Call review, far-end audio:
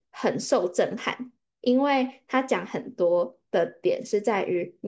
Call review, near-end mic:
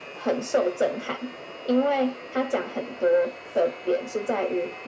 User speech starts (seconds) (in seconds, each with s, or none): none